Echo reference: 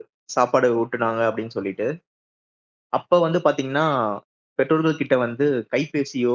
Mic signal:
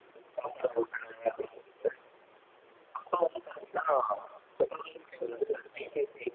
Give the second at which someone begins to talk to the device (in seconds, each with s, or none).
none